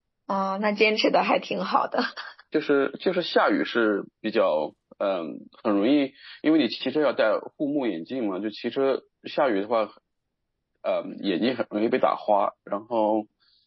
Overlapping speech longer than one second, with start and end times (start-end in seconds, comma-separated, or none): none